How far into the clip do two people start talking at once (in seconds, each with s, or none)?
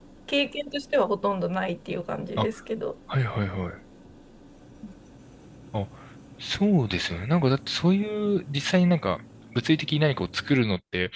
none